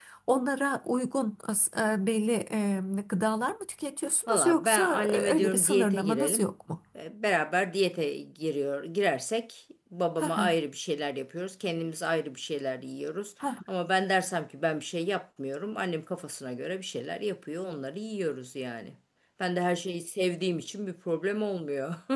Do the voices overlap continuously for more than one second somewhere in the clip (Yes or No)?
Yes